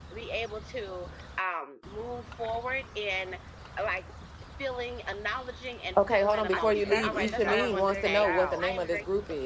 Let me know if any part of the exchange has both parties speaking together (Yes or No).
Yes